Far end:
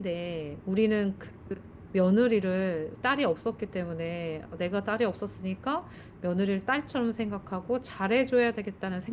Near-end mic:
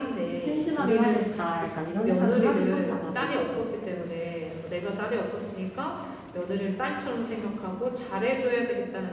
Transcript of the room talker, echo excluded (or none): 심심하긴 하겠다. 약간 이런 생각을 하긴 한다, 나도.